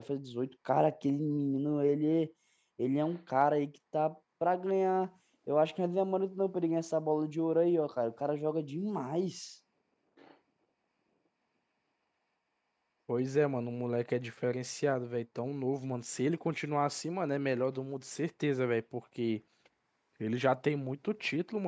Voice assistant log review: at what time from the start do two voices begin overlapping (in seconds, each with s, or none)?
none